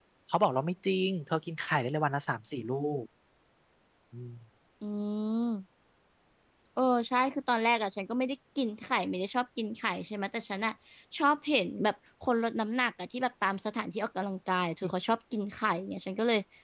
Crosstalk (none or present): none